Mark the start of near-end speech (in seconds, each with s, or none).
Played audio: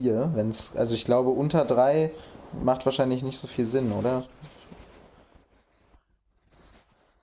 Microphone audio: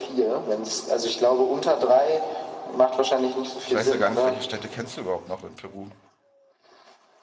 3.6 s